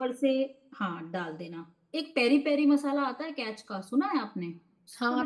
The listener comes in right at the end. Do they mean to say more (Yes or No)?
Yes